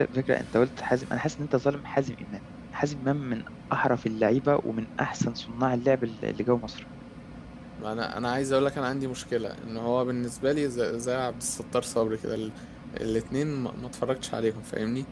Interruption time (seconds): none

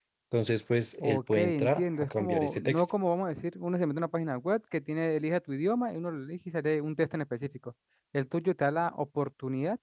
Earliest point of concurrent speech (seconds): 1.0 s

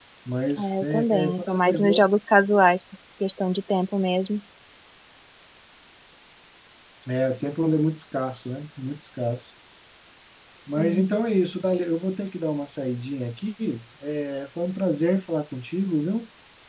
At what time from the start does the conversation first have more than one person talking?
0.6 s

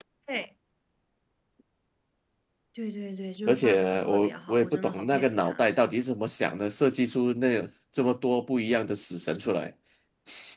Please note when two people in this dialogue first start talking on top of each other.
3.5 s

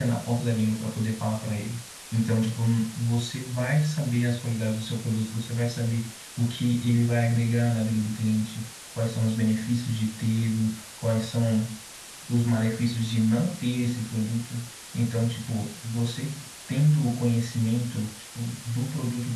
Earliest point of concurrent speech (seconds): none

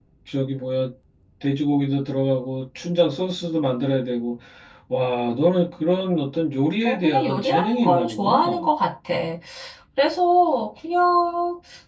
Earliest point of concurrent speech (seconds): 6.8 s

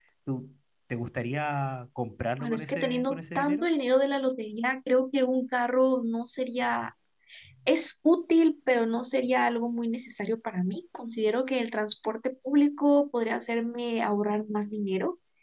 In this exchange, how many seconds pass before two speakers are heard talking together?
2.4 s

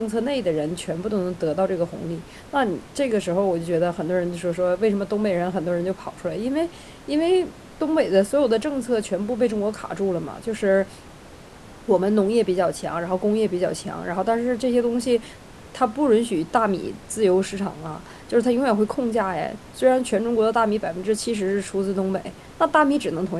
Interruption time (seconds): none

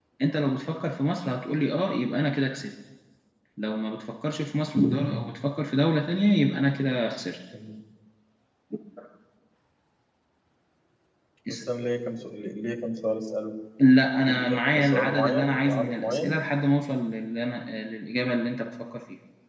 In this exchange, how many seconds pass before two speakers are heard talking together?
14.3 s

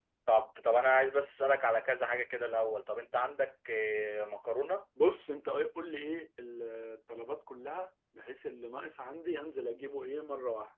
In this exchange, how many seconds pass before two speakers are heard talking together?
none

